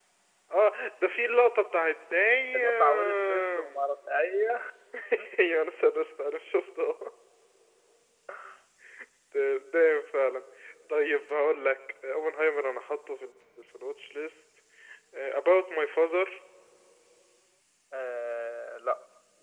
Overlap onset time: 2.5 s

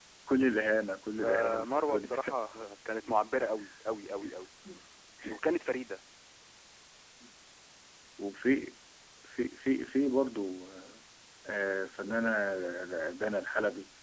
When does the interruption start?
1.1 s

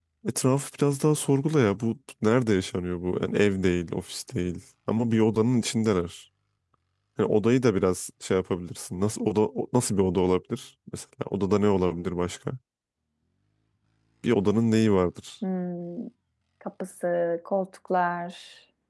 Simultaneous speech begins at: none

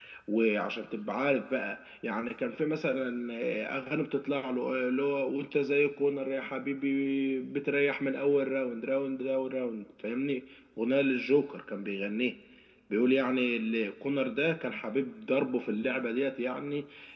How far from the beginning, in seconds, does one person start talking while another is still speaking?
none

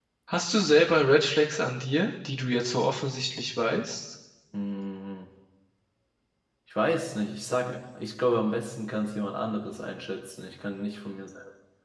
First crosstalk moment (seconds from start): none

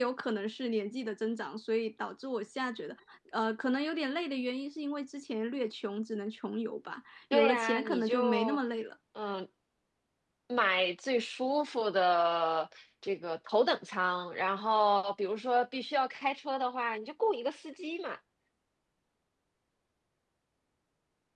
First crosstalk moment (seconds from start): 7.3 s

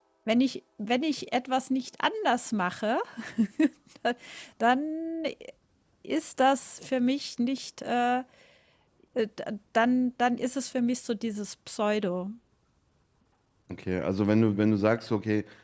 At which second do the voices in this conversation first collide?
none

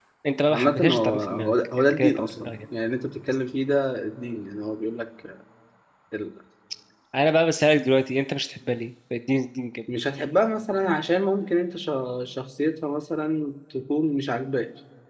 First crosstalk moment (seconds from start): 0.5 s

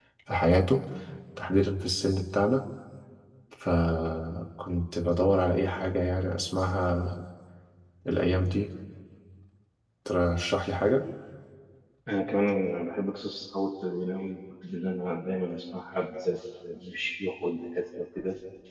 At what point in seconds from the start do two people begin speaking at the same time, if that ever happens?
none

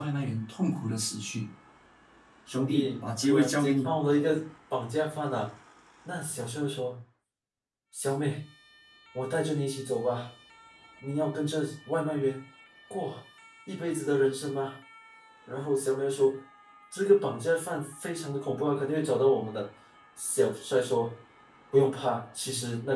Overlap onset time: 2.5 s

